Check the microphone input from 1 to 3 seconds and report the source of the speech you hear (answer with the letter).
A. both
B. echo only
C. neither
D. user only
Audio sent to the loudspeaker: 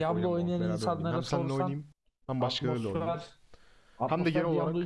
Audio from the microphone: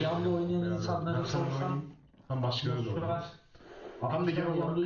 B